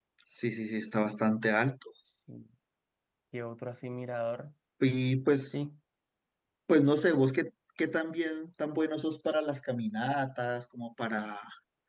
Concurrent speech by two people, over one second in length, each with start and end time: none

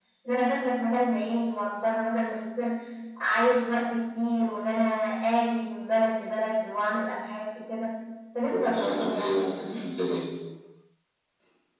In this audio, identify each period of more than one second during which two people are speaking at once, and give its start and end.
8.5-9.9

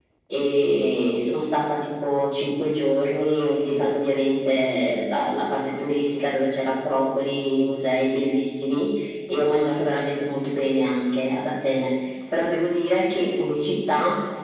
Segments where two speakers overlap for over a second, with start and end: none

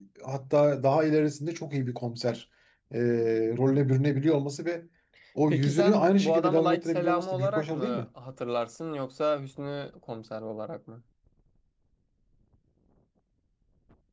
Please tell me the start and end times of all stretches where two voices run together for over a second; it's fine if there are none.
5.5-8.0

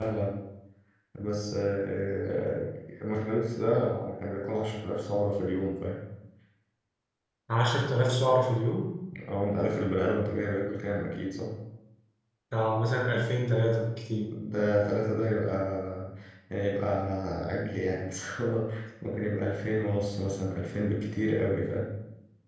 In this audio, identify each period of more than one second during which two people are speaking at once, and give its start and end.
none

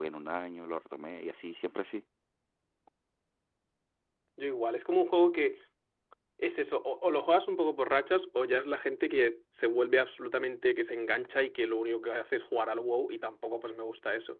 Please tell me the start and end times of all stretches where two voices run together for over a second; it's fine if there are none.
none

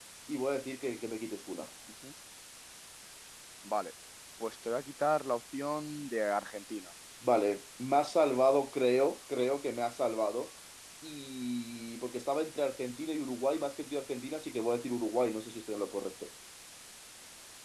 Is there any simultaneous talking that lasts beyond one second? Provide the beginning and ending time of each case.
none

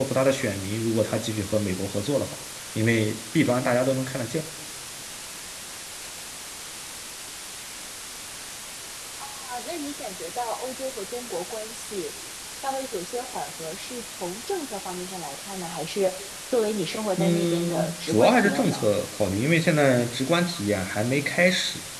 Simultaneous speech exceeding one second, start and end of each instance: 17.2-18.8

